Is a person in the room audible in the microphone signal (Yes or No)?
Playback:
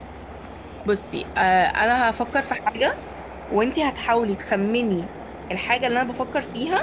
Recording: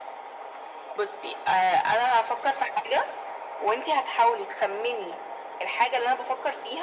No